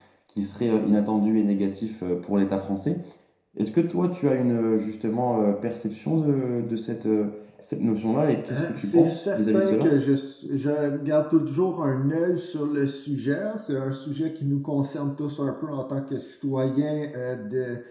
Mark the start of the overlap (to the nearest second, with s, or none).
8 s